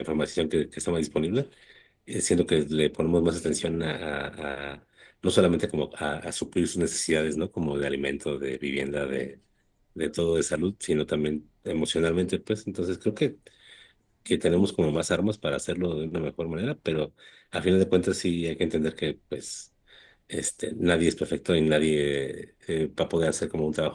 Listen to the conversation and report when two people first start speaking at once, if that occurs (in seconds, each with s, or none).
none